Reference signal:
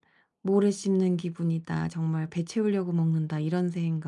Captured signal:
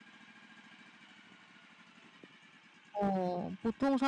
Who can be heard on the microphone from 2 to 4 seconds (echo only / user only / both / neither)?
user only